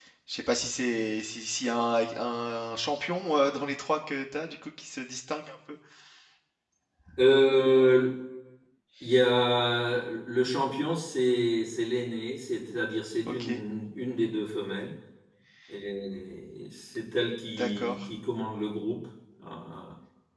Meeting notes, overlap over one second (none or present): none